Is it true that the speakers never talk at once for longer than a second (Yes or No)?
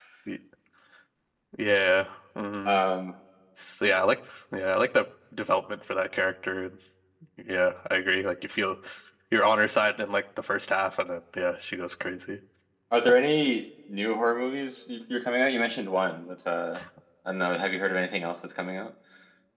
Yes